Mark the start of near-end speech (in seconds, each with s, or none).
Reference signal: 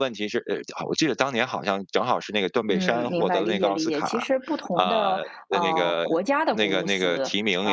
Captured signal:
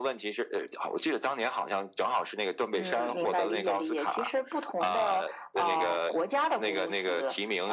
none